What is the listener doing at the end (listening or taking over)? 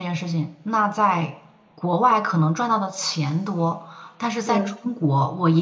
listening